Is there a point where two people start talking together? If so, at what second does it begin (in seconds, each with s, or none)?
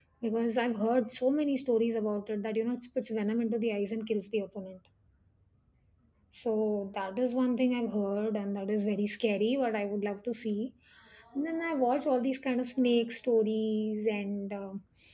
none